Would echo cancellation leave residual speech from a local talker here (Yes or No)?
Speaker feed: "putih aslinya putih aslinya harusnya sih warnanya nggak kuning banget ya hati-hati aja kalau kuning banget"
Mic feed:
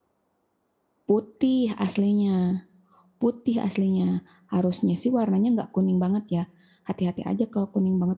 No